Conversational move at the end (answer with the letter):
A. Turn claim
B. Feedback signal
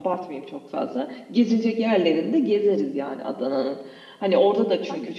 B